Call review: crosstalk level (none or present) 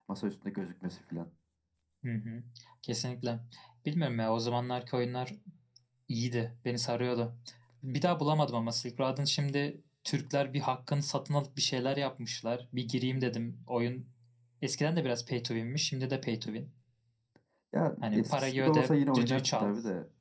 present